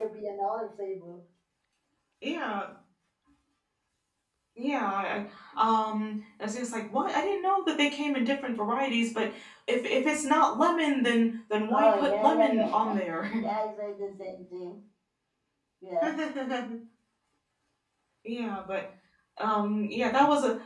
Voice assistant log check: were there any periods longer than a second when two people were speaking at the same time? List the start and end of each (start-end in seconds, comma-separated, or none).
11.7-13.2